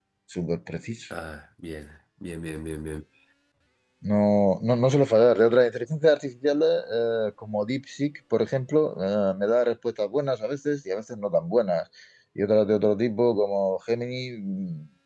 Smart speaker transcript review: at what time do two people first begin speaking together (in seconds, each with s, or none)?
none